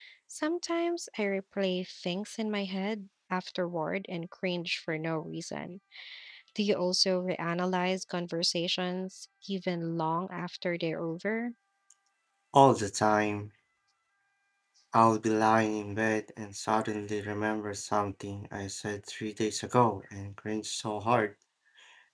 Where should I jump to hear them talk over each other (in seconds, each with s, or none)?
none